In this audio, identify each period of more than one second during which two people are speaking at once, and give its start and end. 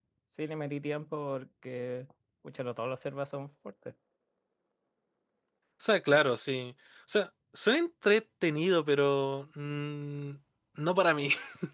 none

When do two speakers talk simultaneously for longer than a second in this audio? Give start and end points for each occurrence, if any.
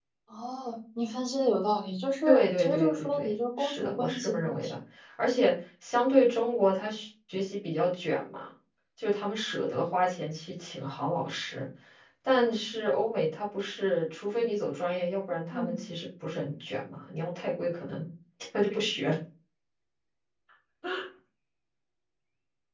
2.3-4.7

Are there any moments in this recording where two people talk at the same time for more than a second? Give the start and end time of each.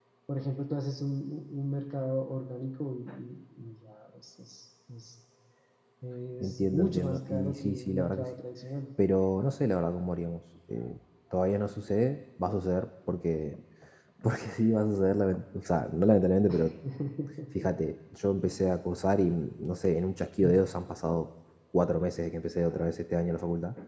6.4-8.3

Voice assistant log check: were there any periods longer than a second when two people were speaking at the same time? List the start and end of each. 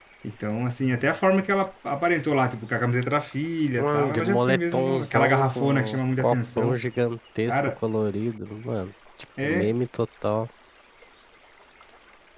3.8-6.8

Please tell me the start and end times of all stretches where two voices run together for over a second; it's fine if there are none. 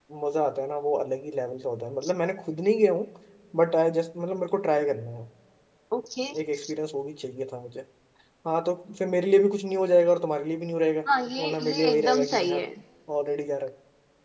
11.4-12.6

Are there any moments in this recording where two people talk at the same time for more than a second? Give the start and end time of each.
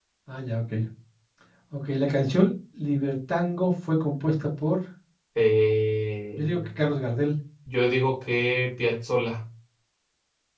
none

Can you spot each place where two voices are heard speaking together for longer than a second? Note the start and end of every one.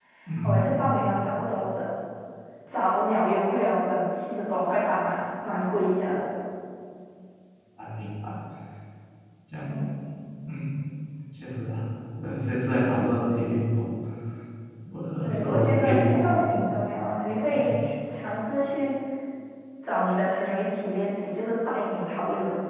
15.2-16.7

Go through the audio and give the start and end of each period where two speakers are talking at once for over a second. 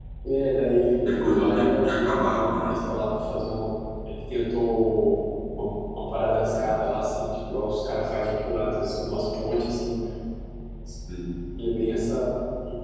1.2-2.8

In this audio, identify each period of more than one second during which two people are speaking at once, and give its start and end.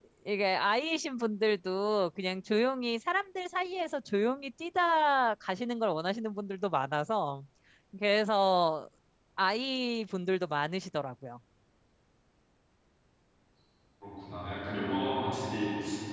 none

